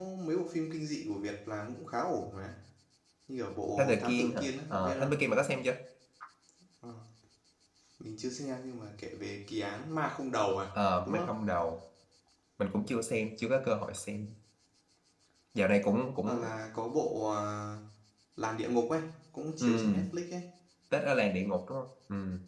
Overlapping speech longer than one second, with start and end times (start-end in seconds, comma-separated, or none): 3.8-5.1